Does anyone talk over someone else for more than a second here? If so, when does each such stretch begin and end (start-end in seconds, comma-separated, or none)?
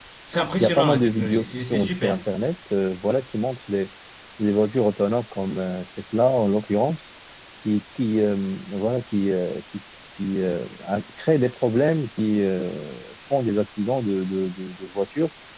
0.6-2.2